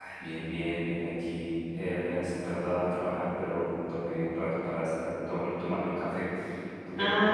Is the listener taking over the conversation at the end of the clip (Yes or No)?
Yes